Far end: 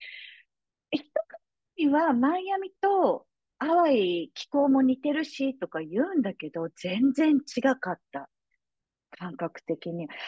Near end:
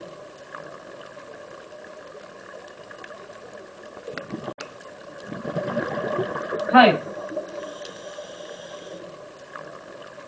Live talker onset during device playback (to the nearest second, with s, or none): 7 s